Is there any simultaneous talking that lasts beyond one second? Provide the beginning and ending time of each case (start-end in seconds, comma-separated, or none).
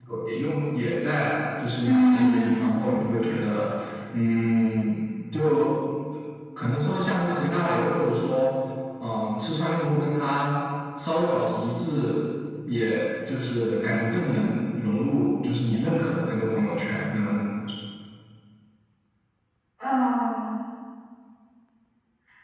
1.8-3.1